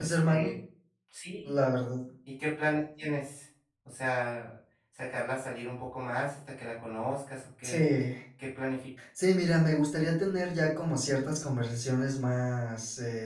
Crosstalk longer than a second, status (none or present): none